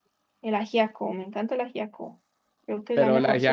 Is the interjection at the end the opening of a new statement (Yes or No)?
Yes